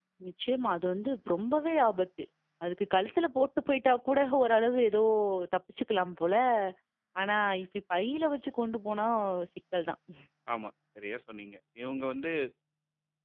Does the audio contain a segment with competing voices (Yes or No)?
No